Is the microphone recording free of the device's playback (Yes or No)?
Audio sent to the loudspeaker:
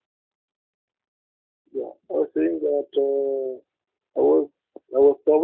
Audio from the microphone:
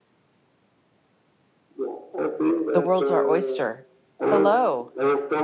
No